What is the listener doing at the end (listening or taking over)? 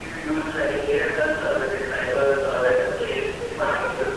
taking over